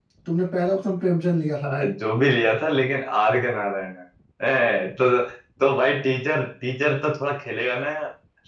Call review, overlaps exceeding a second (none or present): none